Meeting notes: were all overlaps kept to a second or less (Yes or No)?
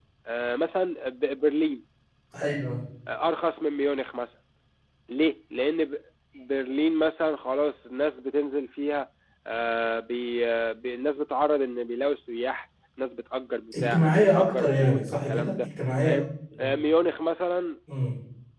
No